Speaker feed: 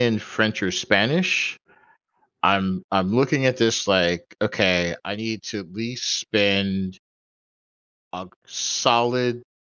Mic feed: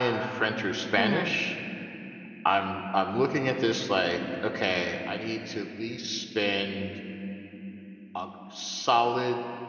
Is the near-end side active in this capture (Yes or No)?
Yes